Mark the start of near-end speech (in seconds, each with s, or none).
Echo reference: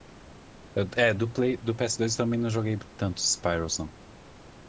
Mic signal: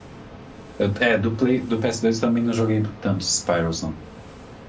none